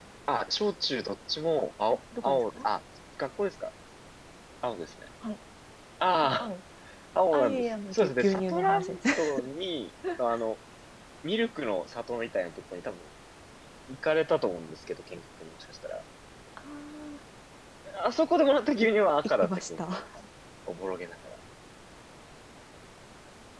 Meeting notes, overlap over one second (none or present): present